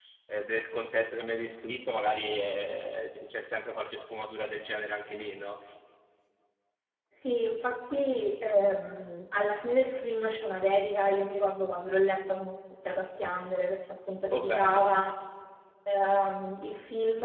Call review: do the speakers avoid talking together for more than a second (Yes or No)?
Yes